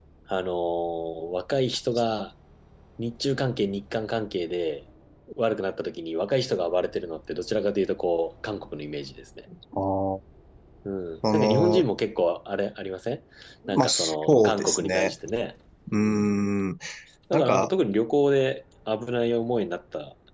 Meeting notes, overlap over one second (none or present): present